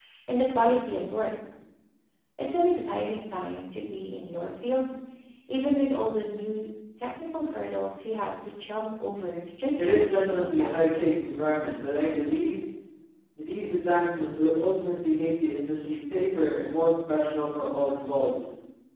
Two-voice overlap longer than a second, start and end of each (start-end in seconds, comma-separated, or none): 9.8-11.1